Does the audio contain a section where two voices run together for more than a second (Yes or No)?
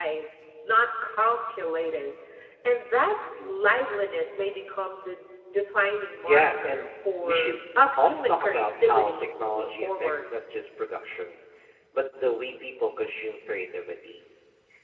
Yes